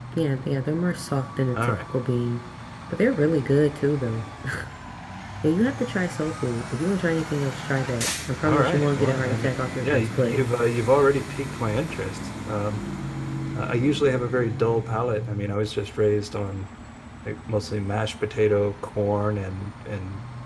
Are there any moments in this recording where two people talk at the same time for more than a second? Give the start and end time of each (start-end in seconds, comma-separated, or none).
8.4-10.4